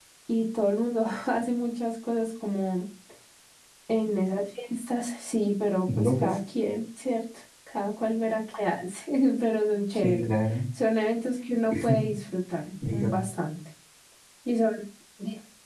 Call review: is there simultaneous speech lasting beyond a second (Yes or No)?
No